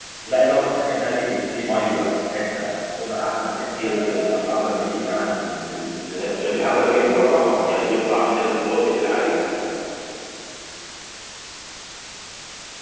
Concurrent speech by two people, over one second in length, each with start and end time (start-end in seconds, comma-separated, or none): 6.2-8.0